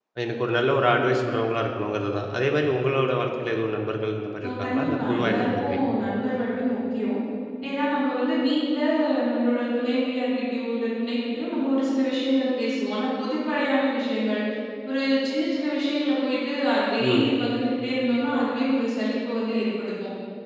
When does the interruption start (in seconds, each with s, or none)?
4.5 s